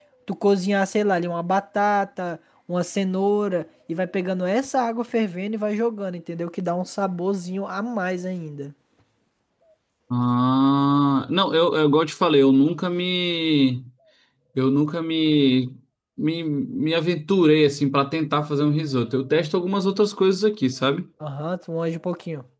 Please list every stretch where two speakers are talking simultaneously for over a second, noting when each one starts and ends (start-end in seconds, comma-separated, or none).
none